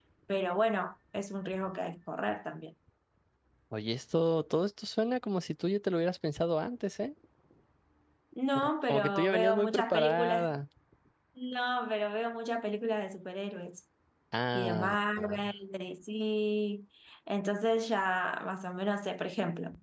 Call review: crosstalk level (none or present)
present